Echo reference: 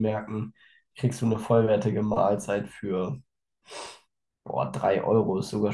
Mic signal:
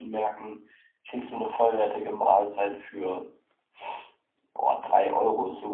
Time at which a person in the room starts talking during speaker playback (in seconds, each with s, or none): none